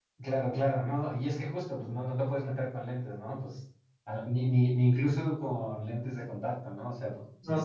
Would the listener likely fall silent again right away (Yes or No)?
No